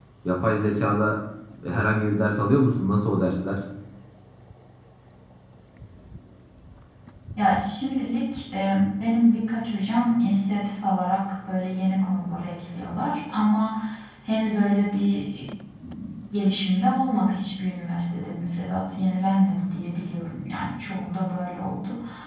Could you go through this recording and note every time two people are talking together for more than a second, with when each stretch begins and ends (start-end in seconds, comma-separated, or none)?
none